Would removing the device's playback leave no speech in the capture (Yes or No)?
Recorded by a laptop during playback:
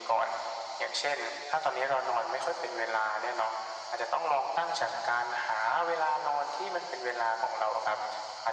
Yes